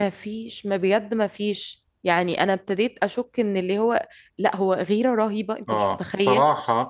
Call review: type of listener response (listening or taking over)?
taking over